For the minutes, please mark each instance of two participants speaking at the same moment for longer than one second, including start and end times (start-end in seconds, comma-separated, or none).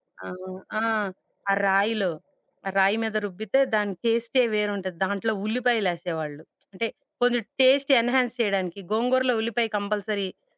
none